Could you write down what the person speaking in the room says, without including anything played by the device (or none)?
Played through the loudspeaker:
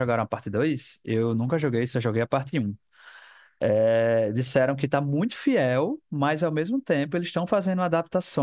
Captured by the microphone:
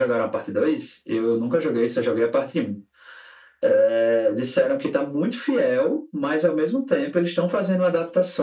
none